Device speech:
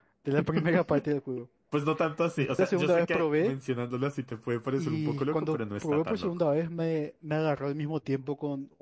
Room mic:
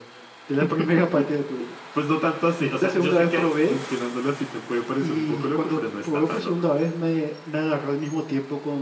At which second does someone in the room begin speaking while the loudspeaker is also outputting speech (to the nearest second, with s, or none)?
none